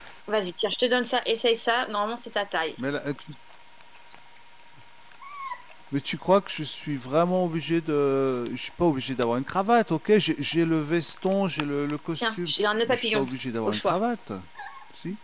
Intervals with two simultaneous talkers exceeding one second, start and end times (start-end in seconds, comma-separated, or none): none